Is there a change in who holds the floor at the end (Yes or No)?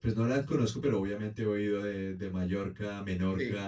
Yes